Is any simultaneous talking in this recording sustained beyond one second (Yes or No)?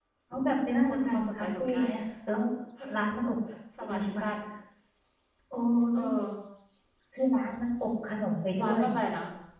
Yes